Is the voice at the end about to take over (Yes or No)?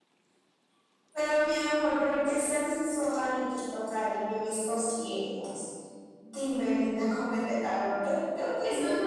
Yes